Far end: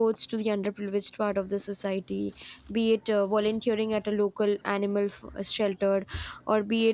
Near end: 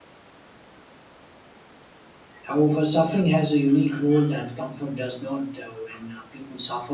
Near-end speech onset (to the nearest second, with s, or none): 2 s